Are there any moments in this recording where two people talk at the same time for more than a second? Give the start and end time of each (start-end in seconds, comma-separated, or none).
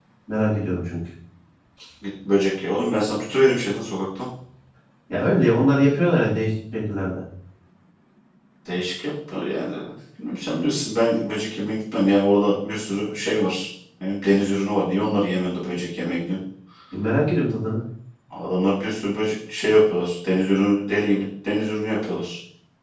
none